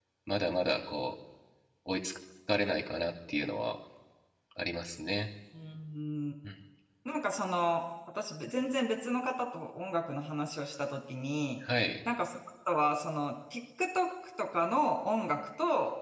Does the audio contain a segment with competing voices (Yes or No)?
No